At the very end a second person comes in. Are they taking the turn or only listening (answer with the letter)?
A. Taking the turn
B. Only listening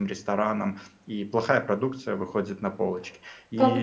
A